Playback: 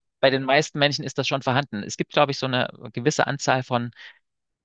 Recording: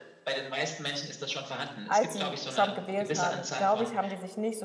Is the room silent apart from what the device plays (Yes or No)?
No